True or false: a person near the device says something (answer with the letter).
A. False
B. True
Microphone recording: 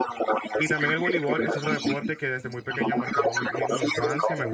B